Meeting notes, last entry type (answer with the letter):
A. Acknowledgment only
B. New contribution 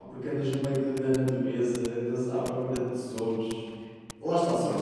A